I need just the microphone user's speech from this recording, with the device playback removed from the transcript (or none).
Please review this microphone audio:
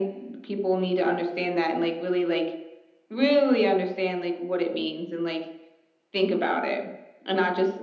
none